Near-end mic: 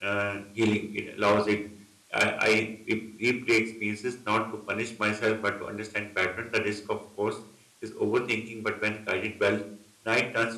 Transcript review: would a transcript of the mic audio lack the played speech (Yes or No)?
Yes